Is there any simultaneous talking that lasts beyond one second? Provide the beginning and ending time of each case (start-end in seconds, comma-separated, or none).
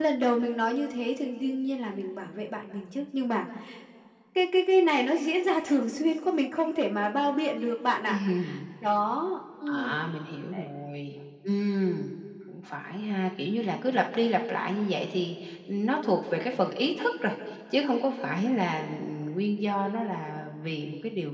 none